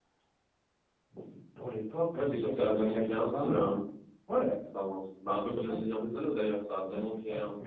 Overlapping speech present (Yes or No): Yes